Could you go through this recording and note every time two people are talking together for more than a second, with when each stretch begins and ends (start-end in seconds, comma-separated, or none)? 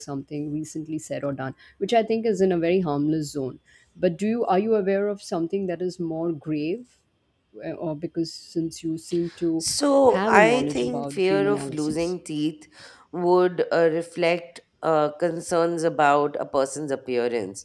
10.2-12.0